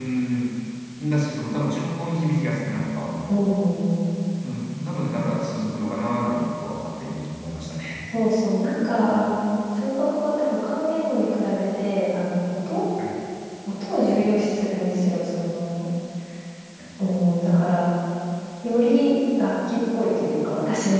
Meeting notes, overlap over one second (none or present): none